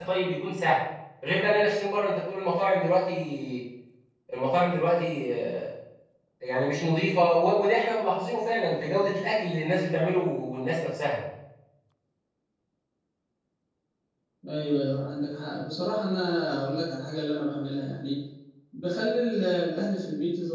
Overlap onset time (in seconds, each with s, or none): none